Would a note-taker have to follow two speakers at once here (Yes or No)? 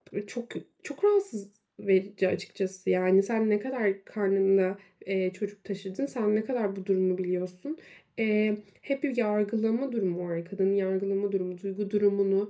No